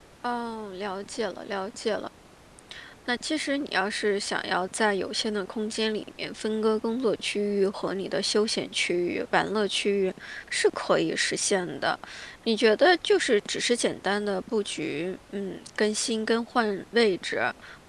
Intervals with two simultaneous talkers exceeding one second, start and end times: none

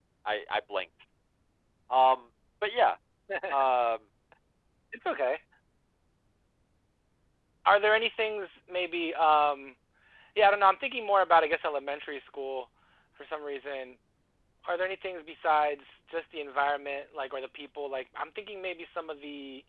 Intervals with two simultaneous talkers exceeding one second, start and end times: none

